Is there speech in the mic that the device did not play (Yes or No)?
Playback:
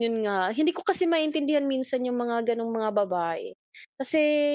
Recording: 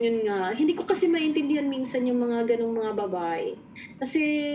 No